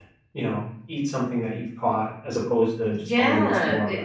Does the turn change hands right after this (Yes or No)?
Yes